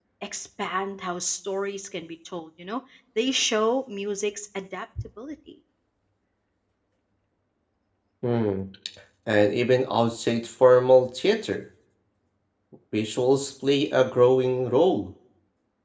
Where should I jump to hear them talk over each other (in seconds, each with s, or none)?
none